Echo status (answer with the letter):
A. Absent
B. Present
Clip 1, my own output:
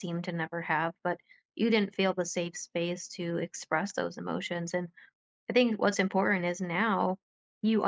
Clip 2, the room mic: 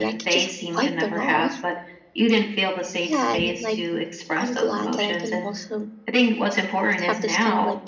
B